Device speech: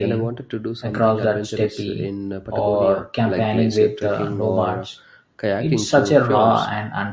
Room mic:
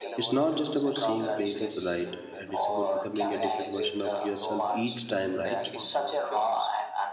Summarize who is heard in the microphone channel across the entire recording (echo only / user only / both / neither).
both